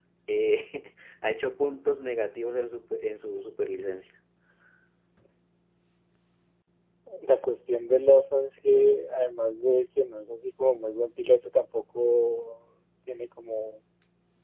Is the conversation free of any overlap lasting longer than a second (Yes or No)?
Yes